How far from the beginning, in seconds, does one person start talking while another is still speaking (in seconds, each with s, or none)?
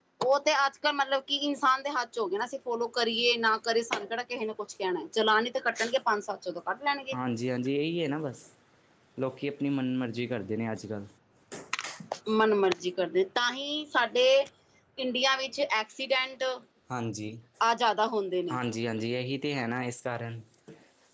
none